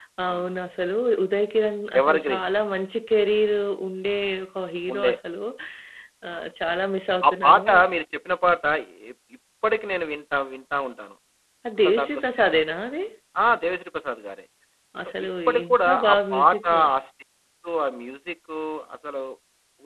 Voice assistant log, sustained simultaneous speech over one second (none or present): present